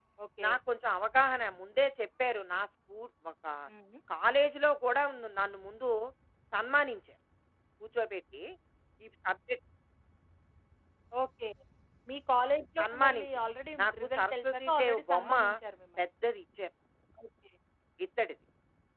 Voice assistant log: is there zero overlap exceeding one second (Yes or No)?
No